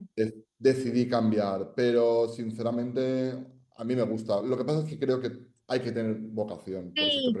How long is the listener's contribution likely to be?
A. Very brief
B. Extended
B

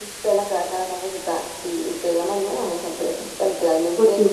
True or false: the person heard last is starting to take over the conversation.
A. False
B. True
A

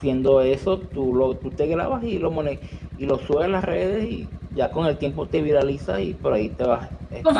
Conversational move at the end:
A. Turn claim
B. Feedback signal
A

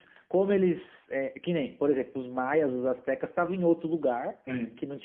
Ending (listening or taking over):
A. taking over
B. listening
B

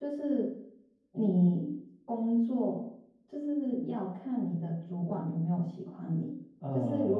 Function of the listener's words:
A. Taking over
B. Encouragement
B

